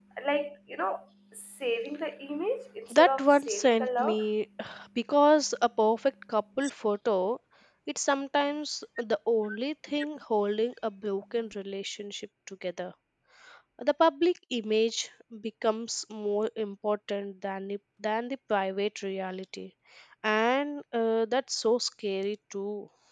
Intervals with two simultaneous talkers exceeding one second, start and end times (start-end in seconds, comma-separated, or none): 2.9-4.2